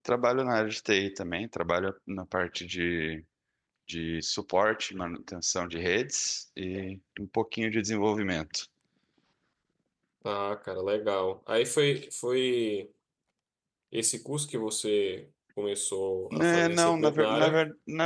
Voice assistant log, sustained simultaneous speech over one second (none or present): present